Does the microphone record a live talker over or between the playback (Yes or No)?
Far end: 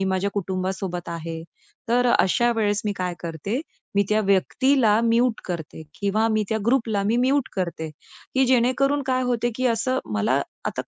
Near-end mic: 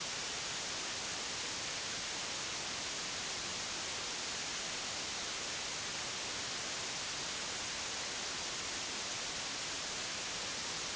No